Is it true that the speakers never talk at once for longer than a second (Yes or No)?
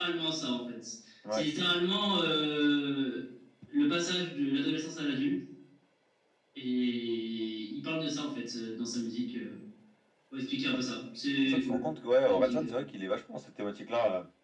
Yes